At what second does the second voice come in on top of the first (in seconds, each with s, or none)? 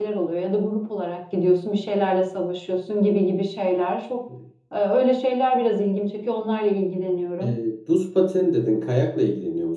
none